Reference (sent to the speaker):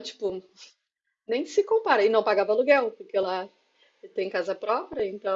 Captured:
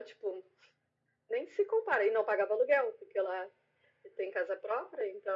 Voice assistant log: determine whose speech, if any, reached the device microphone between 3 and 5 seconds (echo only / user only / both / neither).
echo only